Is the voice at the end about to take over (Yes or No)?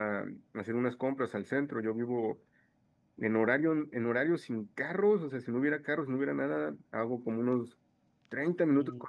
No